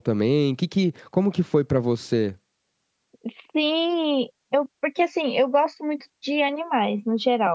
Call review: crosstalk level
none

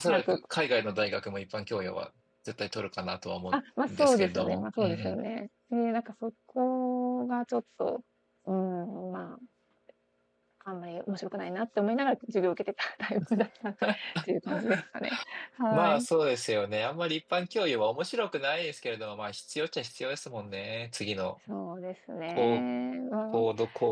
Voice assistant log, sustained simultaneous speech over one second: present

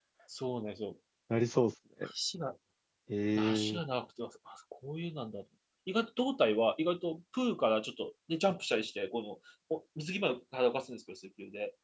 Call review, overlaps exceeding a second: none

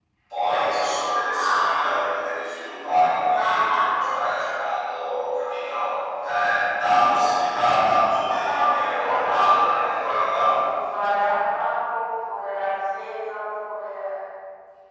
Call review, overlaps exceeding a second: present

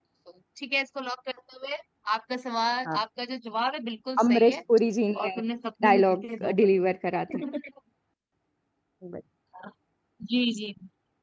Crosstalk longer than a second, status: none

